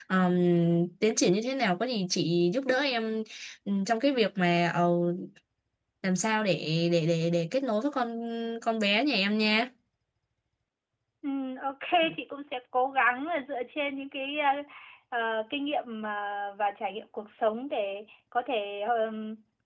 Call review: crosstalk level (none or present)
none